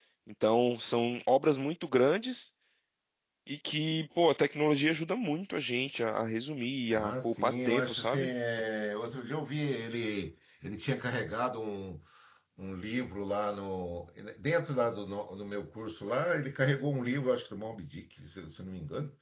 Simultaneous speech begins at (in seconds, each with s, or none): 6.9 s